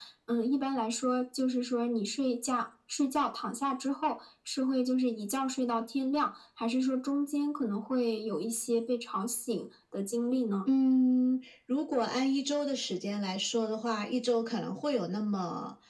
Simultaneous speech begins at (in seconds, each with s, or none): none